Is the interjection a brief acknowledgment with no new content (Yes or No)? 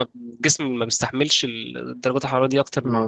No